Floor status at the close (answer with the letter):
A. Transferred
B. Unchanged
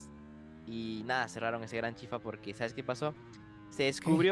B